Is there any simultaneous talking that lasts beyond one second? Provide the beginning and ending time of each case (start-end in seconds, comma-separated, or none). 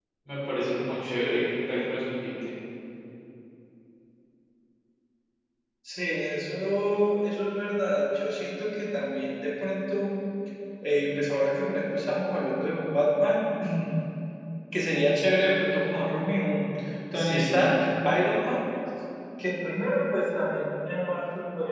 none